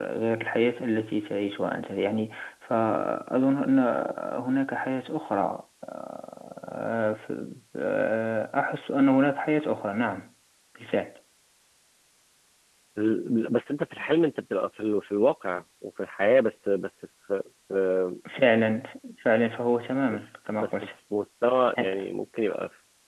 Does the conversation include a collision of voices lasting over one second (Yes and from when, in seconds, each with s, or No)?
No